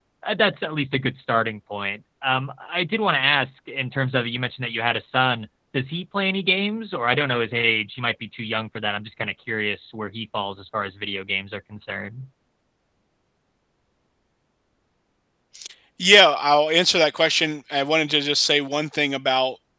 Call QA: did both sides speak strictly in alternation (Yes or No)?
Yes